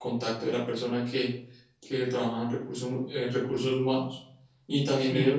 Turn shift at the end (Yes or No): No